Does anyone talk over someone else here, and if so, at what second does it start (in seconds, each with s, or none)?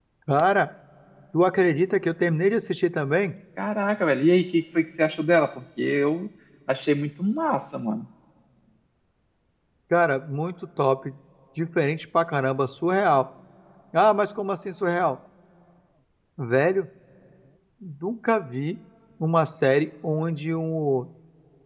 none